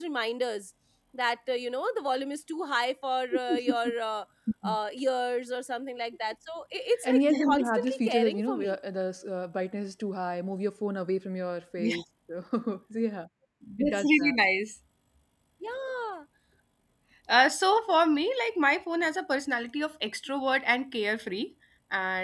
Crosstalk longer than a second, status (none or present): present